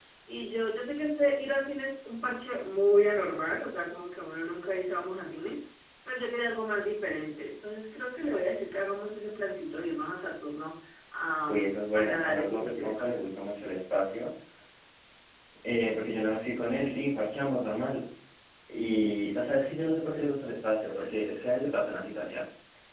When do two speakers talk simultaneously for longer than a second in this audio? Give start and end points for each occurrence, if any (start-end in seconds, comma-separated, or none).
11.5-13.1